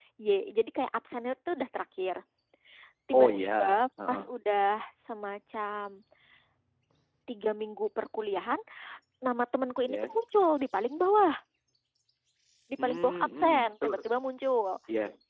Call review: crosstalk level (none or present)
present